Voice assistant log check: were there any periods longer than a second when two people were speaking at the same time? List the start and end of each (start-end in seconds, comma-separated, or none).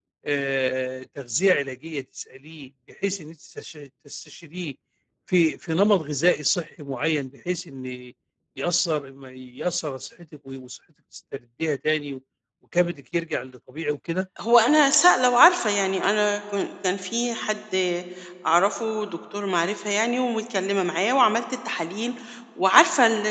none